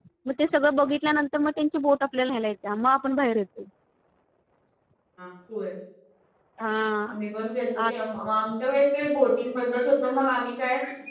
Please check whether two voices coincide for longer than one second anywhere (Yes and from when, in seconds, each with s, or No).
No